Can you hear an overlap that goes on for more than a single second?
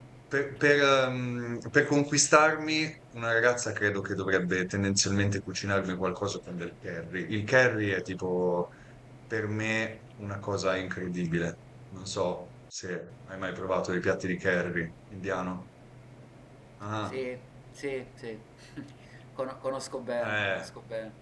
No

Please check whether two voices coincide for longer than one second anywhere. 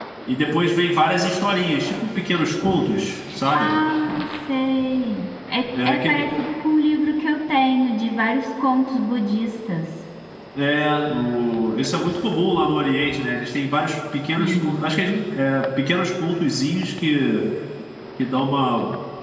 No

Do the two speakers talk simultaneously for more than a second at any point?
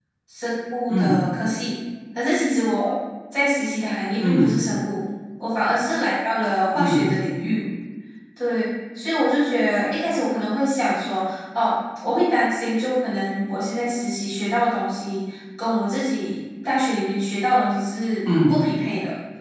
No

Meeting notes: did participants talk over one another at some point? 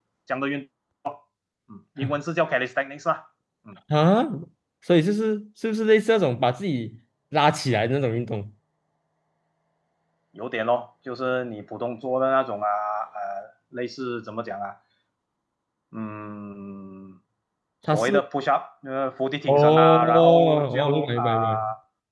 Yes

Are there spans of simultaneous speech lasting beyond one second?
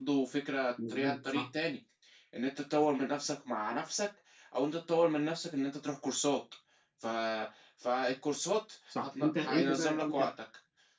Yes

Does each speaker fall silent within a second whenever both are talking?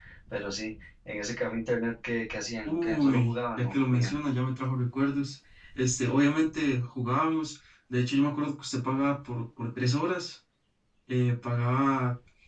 No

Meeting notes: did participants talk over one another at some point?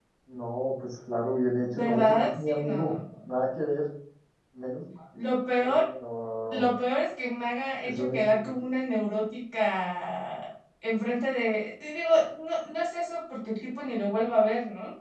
Yes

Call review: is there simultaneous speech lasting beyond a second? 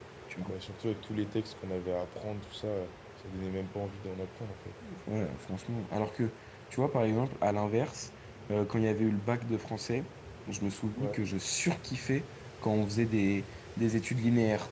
No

